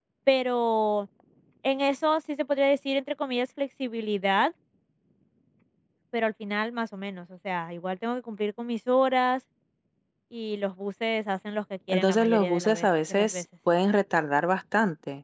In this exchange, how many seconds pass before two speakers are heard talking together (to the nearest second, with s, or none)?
12 s